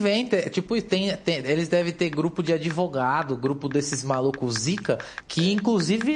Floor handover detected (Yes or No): No